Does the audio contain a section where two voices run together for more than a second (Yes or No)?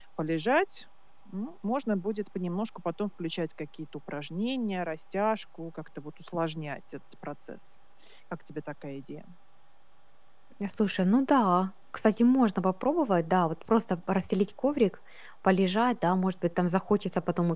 No